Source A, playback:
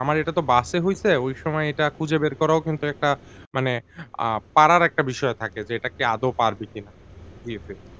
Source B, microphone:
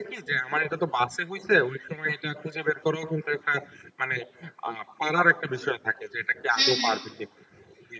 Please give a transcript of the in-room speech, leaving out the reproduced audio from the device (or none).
হু, হু।